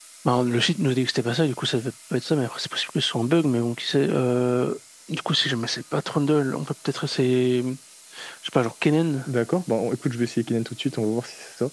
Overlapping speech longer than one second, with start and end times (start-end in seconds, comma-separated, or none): none